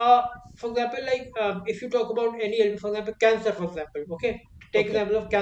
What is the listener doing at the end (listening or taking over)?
listening